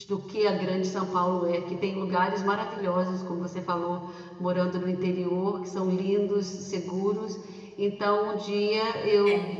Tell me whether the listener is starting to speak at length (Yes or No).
No